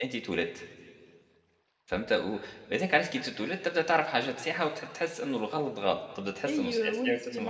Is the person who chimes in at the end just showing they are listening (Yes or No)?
No